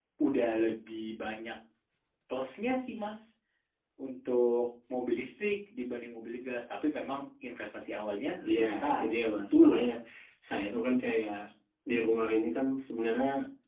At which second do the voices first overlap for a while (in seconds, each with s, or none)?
8.4 s